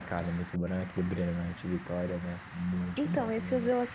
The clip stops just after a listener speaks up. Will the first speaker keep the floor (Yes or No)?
No